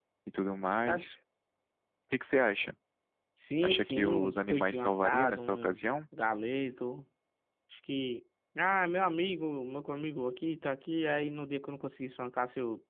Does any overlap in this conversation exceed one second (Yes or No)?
Yes